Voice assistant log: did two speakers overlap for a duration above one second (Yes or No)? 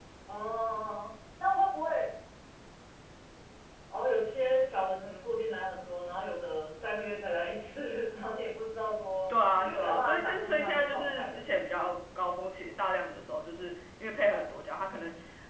Yes